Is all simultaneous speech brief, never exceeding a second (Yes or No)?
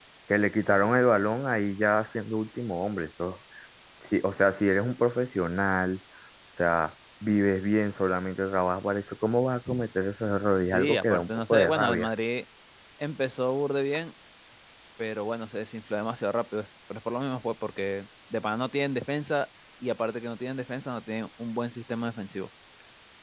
No